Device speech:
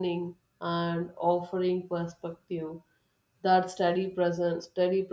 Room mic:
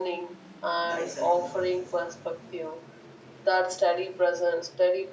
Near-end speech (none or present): present